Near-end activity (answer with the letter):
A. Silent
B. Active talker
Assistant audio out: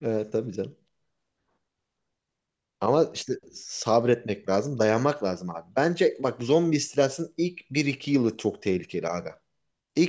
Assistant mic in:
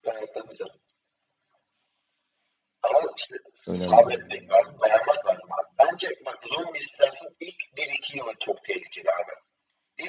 B